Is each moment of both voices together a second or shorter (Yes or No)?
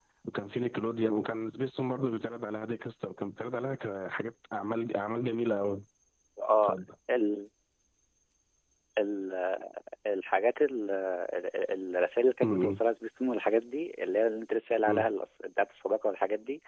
Yes